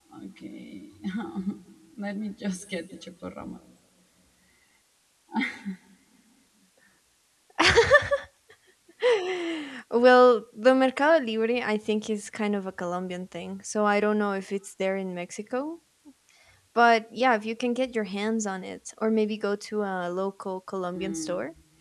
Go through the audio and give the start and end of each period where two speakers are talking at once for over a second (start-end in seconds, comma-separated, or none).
none